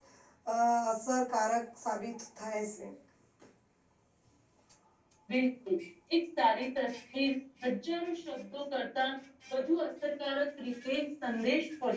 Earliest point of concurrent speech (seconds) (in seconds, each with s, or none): none